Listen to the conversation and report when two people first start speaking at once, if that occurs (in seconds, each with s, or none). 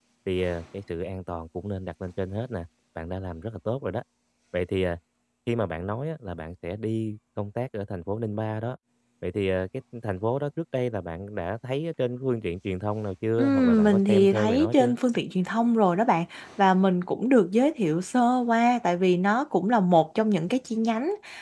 13.4 s